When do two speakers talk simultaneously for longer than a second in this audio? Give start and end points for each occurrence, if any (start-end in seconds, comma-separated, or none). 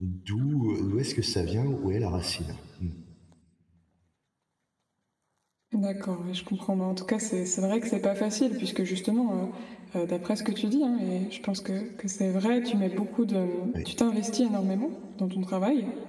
none